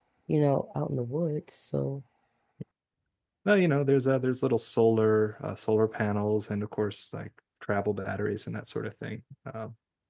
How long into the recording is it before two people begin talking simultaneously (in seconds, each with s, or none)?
none